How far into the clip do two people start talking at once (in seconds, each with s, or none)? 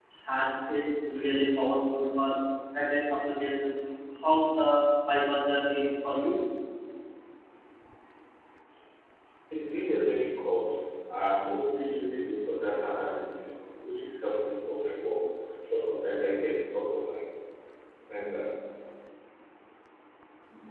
none